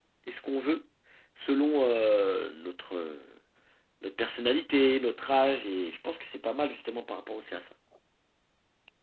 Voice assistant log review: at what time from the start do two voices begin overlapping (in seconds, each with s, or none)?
none